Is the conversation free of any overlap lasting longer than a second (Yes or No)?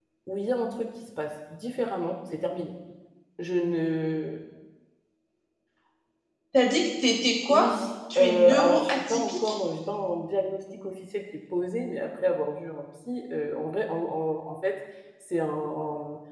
No